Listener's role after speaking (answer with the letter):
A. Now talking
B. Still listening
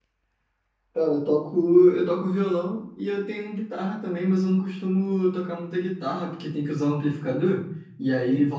B